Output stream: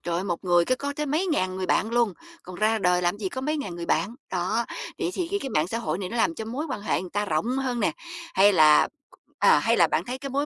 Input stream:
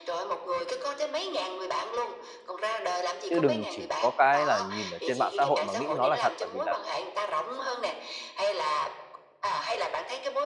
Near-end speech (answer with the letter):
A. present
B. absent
A